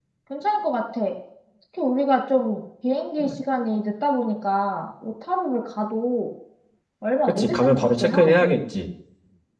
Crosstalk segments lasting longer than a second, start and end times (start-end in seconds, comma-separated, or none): 7.2-8.5